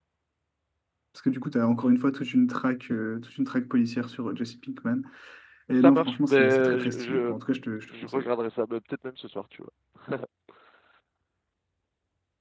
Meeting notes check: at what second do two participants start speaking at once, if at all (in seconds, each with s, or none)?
5.7 s